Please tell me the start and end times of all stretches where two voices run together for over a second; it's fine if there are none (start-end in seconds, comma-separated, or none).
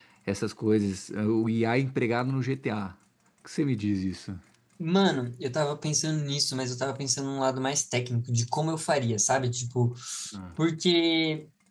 none